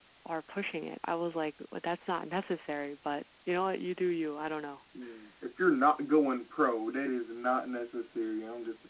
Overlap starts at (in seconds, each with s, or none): none